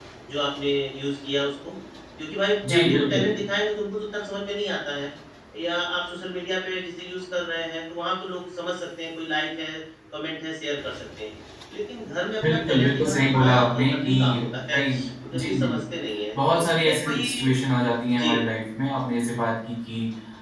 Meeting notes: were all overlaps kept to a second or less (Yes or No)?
No